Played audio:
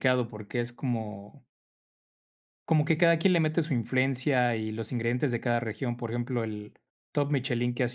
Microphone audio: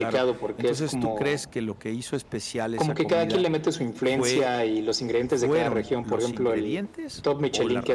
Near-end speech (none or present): present